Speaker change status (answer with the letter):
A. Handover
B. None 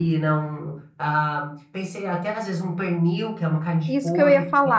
A